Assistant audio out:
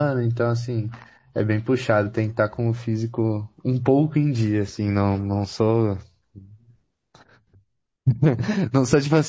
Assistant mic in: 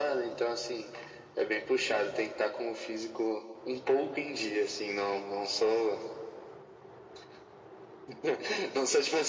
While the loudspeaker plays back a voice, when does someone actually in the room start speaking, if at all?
none

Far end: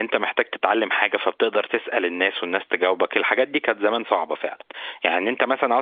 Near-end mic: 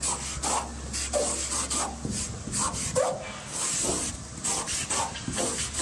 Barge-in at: none

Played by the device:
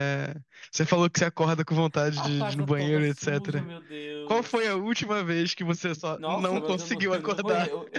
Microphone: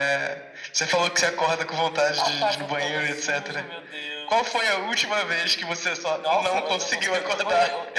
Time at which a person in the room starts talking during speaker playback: none

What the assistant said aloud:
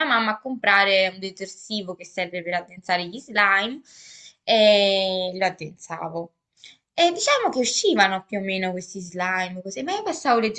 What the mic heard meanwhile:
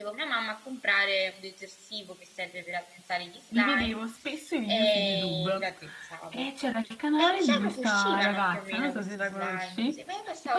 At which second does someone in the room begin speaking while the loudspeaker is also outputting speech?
3 s

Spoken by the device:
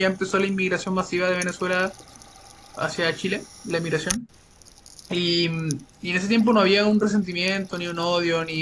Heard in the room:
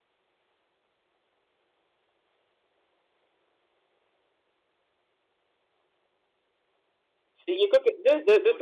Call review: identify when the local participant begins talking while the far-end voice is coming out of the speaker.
7 s

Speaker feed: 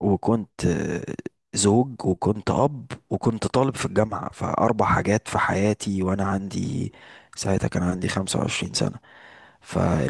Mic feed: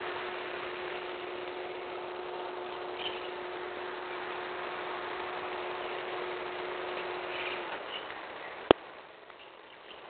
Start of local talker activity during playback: none

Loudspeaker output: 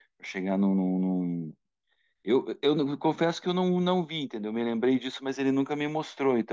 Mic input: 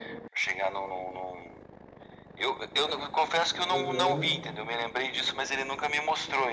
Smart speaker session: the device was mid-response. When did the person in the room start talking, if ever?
4 s

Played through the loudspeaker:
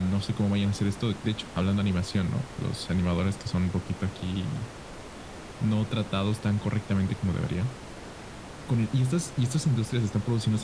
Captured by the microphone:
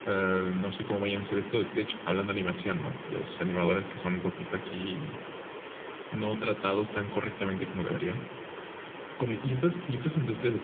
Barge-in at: none

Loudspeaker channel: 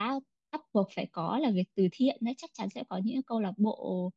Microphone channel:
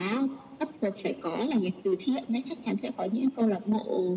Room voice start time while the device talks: none

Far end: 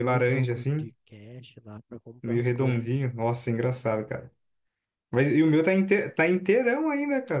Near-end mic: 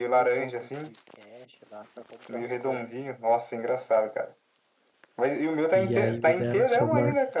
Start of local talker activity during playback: 6 s

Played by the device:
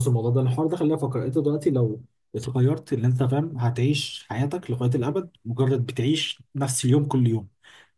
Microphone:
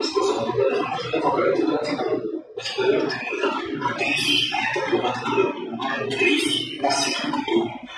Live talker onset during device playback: none

